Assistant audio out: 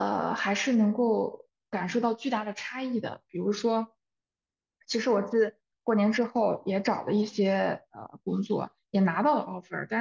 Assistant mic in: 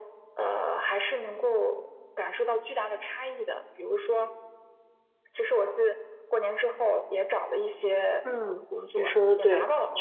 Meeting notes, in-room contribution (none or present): present